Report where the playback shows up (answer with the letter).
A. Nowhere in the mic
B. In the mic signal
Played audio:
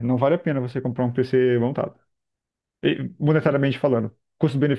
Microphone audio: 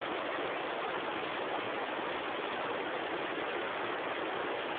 A